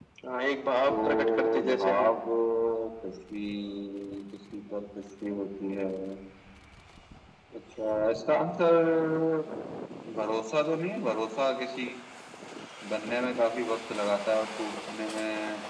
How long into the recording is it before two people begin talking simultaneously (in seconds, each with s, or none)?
0.9 s